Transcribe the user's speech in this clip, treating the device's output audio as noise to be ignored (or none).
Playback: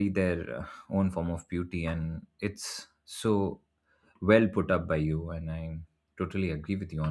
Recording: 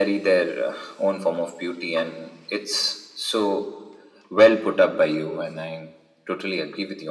none